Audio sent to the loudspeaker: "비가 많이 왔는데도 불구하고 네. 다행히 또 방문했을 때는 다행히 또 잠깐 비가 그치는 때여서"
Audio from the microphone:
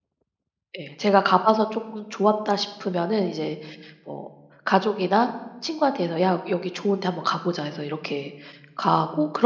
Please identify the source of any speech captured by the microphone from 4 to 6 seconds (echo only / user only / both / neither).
user only